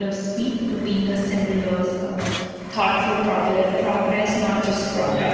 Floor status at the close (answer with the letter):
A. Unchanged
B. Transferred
B